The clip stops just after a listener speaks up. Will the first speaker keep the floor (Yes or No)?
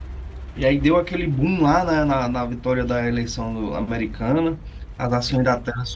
Yes